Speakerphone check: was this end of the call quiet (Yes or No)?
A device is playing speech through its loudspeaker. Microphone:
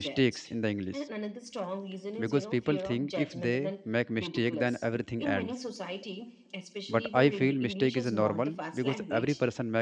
No